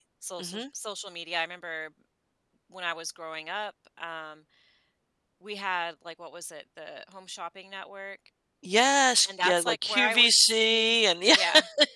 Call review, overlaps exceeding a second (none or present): present